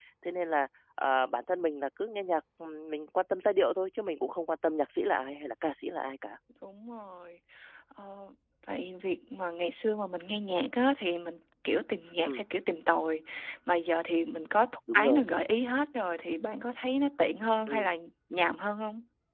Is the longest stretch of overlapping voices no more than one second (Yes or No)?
Yes